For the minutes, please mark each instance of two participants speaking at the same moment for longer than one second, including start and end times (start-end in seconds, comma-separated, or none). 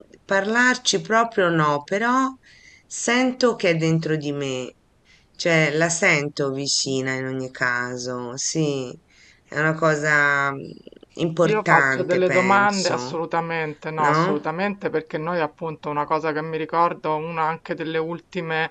11.5-13.2